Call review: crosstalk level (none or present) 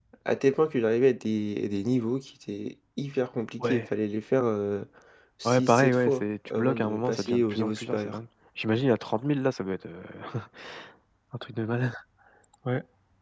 present